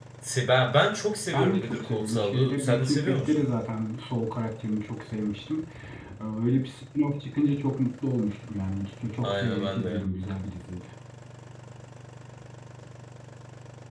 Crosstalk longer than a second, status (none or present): present